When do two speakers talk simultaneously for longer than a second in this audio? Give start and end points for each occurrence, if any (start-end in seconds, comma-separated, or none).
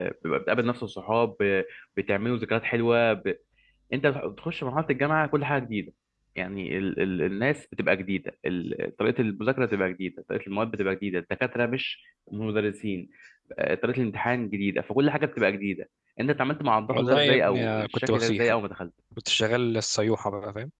16.9-18.5